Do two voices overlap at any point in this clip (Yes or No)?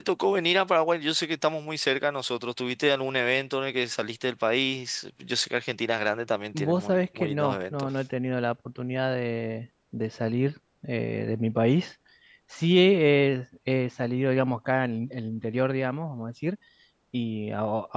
Yes